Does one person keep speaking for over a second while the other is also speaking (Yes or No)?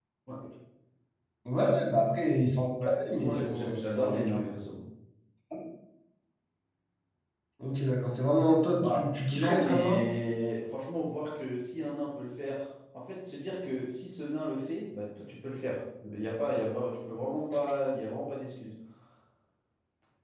Yes